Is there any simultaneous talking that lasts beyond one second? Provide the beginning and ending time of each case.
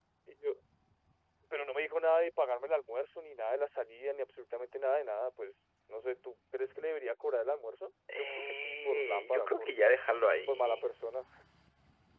8.1-9.7

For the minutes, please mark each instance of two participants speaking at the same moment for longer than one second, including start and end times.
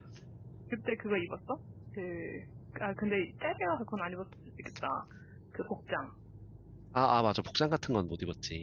none

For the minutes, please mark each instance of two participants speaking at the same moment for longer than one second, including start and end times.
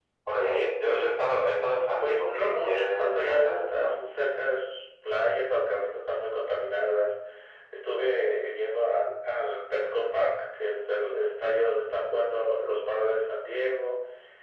2.0-4.1

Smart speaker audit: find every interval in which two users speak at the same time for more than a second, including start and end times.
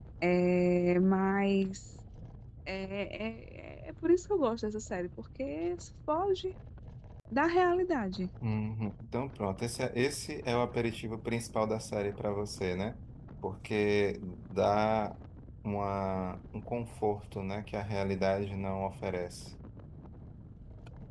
none

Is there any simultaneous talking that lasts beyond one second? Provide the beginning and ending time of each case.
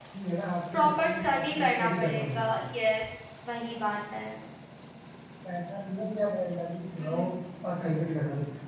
0.7-2.6

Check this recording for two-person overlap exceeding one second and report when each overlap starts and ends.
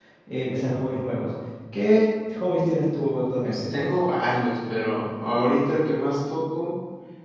none

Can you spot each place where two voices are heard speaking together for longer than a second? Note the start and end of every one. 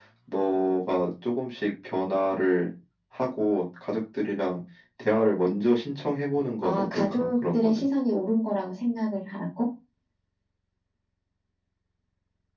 6.6-7.8

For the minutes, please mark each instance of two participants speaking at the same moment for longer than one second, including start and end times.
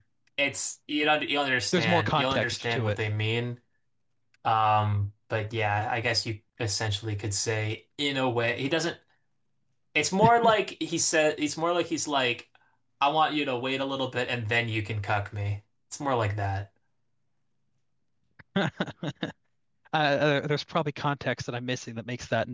1.7-3.0

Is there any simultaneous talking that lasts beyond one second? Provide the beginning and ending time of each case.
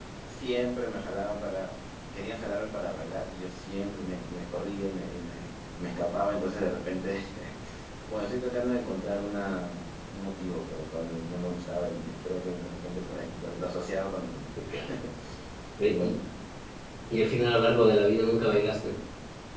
none

